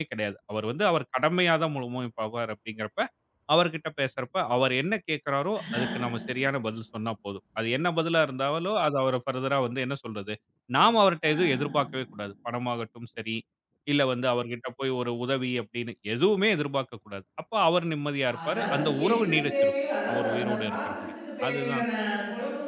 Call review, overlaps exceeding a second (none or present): present